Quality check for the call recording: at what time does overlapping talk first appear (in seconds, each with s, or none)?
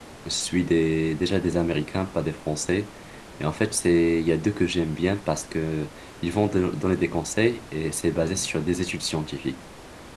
none